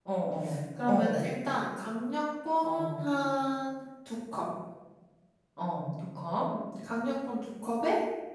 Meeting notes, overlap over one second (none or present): none